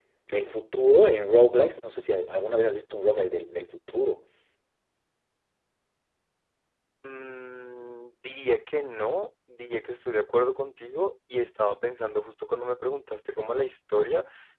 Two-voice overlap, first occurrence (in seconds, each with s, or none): none